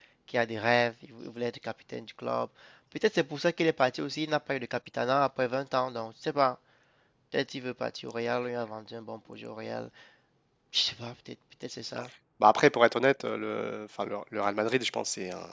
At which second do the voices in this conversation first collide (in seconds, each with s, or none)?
none